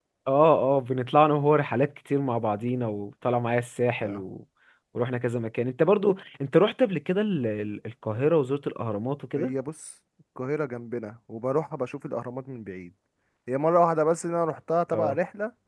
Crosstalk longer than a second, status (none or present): none